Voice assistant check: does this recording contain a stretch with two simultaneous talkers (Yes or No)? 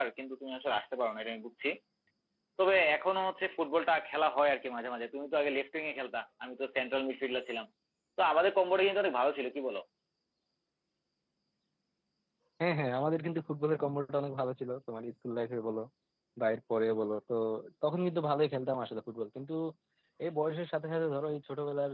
No